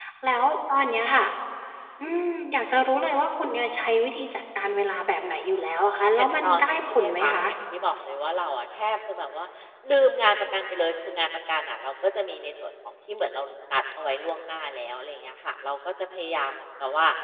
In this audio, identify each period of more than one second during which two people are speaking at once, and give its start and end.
6.2-7.5

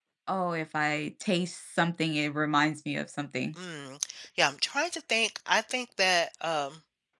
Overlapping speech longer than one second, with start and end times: none

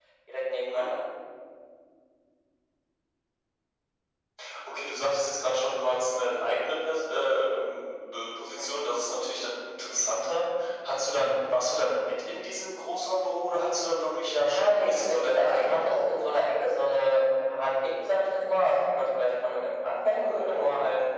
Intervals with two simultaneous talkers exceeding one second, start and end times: 14.5-16.2

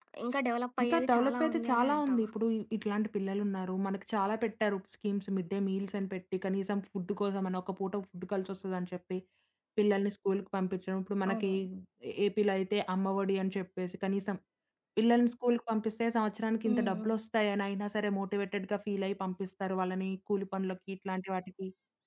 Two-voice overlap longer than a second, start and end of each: 0.8-2.3

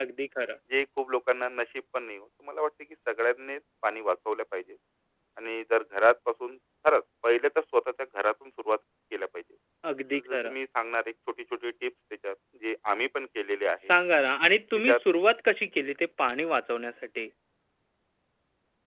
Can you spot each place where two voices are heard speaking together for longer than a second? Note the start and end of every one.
none

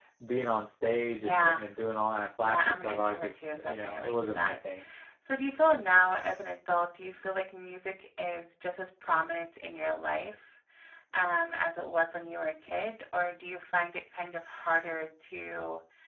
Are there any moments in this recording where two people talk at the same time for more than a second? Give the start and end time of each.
2.4-4.5

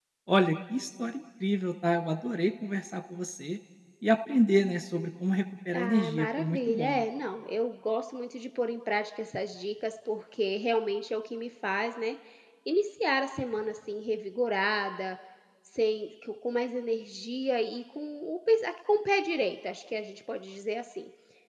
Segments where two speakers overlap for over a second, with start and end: 5.7-7.0

